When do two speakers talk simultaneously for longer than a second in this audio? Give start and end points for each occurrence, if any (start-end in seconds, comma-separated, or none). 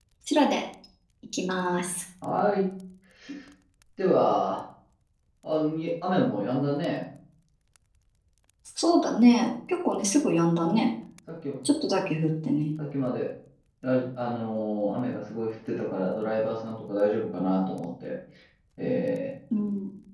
none